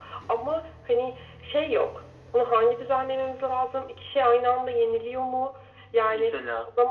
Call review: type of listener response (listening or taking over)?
listening